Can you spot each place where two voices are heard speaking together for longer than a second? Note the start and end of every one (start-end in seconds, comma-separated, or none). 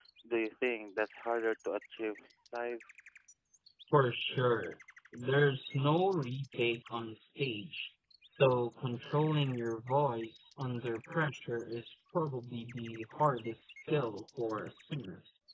none